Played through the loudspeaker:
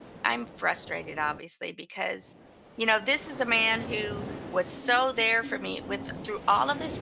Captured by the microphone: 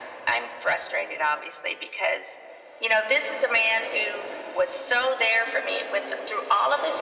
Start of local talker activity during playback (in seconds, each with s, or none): none